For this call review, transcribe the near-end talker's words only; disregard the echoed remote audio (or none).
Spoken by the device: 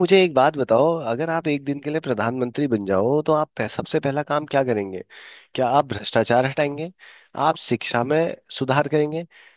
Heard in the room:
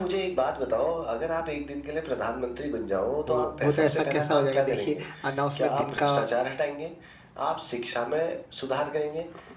वो वो तो ऐसा कैसा हो जाएगा देखिए अ, ना उसमें दिन का